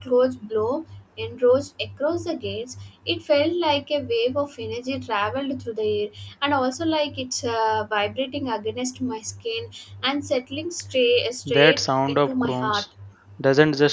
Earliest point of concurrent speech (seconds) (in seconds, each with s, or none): 11.4 s